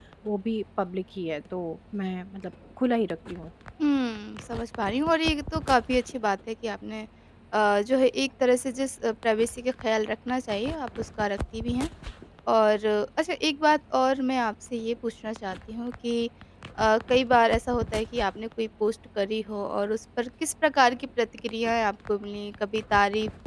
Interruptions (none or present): none